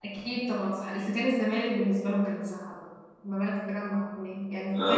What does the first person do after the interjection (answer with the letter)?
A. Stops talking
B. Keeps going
B